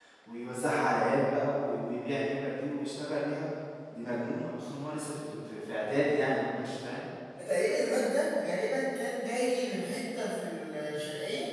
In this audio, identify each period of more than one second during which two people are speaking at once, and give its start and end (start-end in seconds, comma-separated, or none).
none